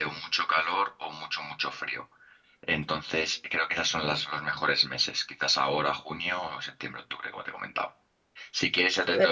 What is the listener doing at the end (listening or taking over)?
listening